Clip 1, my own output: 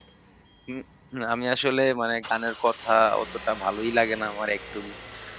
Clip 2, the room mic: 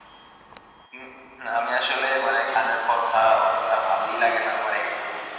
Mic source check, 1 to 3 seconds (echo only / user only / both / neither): echo only